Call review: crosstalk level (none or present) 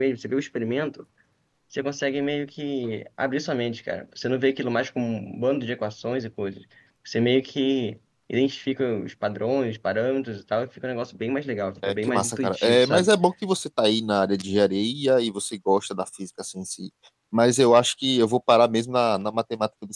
present